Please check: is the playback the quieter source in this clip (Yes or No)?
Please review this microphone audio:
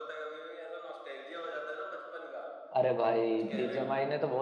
Yes